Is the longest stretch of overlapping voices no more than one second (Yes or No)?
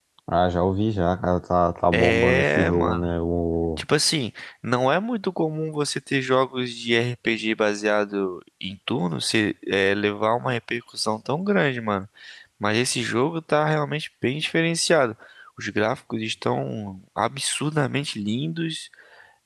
No